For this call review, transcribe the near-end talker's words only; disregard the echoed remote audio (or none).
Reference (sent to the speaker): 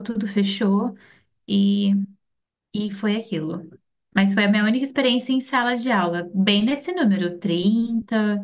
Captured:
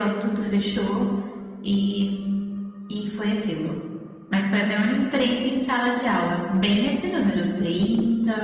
none